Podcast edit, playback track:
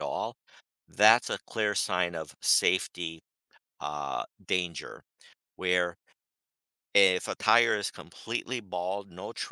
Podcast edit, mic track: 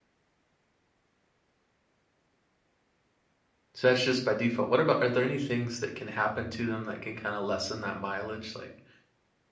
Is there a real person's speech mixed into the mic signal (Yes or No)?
Yes